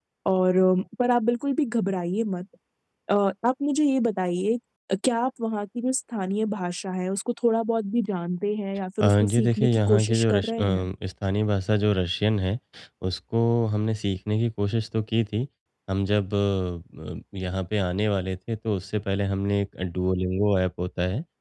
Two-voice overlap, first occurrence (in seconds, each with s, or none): 9.0 s